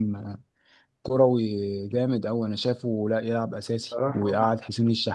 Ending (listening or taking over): listening